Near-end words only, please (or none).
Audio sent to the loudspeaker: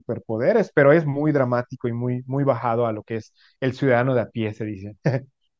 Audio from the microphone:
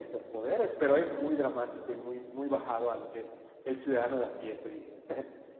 none